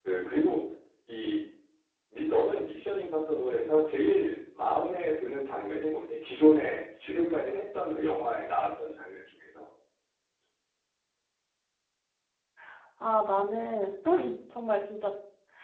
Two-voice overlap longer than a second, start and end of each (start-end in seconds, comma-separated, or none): none